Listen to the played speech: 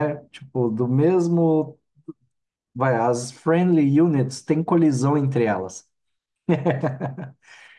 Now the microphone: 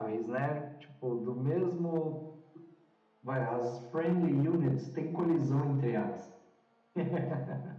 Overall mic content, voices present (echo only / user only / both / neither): echo only